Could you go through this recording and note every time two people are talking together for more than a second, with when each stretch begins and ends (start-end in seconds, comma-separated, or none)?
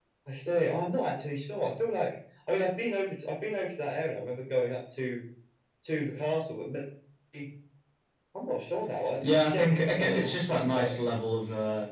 9.2-11.0